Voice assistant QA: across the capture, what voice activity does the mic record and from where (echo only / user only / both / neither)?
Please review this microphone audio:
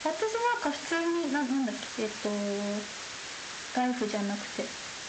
echo only